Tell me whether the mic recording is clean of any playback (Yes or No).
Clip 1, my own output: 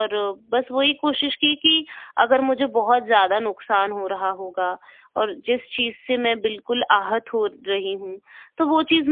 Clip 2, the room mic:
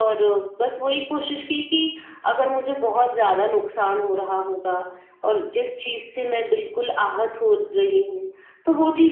No